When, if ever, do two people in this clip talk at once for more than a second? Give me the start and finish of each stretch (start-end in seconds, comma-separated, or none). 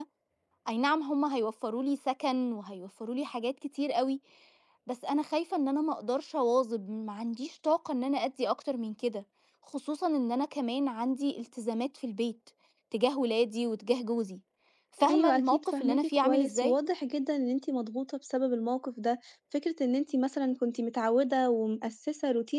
15.1-16.8